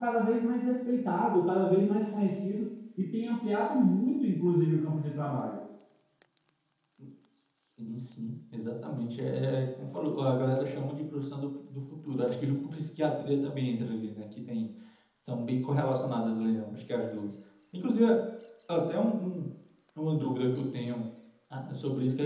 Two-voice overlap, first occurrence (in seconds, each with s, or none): none